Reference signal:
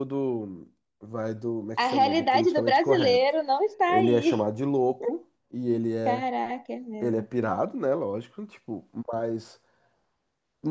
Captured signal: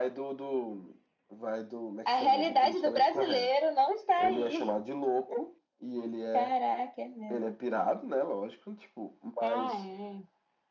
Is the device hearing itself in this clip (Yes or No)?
Yes